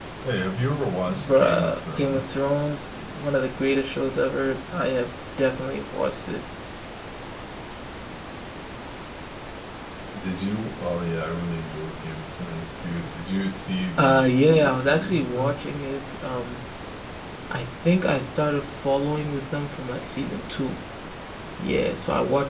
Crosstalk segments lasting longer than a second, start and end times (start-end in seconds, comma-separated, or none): 1.1-2.4, 14.0-15.6